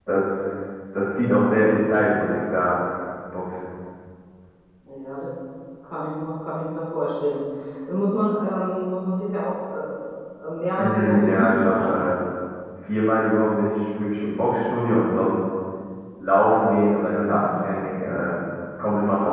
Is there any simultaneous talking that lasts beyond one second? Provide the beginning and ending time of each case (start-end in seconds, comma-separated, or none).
10.8-12.0